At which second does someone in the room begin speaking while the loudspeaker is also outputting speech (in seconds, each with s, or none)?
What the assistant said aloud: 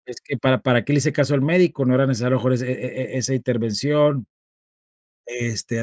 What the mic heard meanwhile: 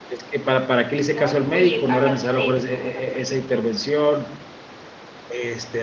1.1 s